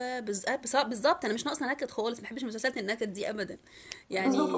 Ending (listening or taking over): taking over